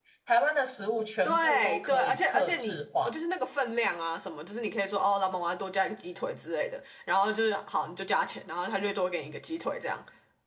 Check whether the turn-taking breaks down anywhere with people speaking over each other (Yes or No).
Yes